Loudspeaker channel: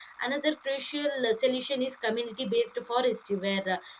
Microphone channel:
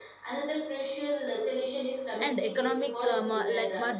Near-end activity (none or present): present